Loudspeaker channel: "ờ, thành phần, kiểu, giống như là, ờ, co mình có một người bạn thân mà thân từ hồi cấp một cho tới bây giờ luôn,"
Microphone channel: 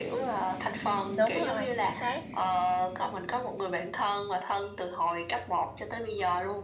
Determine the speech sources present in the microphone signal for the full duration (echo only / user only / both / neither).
both